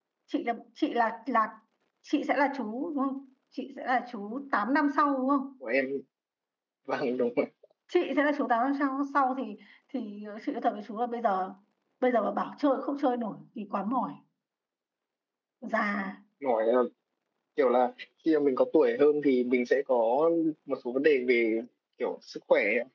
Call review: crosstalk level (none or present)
none